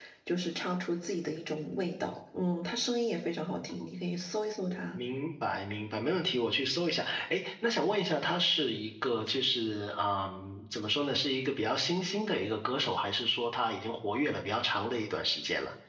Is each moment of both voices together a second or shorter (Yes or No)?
Yes